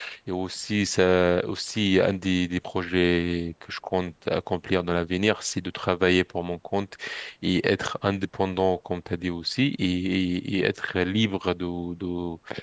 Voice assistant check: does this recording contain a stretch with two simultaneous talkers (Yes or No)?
No